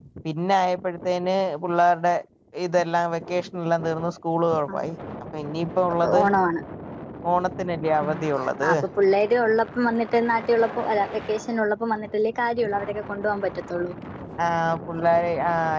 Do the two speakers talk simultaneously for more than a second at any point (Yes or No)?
No